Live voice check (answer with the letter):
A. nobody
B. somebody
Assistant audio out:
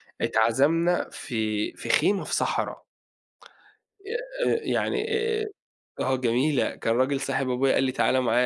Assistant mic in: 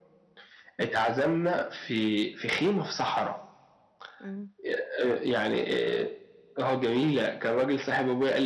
B